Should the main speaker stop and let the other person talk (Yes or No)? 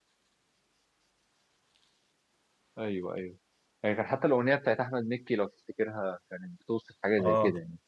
Yes